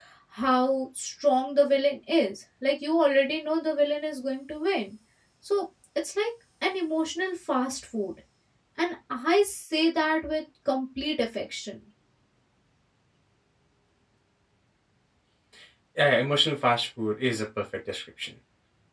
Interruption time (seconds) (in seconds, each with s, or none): none